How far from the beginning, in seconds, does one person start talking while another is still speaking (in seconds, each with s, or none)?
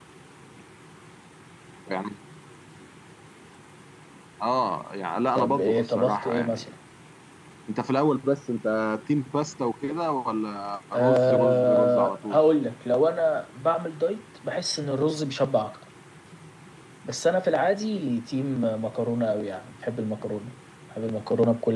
5.3 s